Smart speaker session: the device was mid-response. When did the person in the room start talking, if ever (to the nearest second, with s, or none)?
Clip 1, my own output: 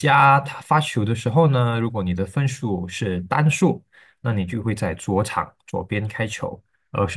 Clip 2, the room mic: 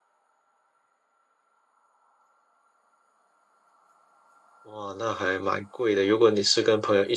5 s